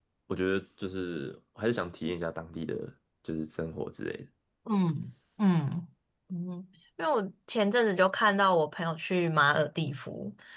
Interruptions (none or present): none